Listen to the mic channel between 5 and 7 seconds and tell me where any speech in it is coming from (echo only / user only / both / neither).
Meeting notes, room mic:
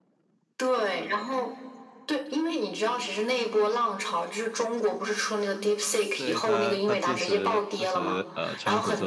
both